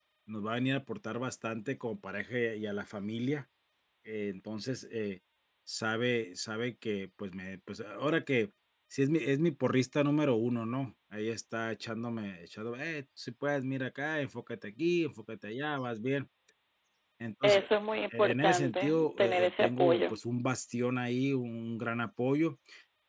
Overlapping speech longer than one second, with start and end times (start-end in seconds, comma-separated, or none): 18.2-20.2